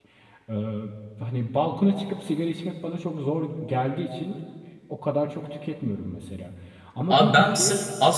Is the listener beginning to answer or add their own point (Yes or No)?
Yes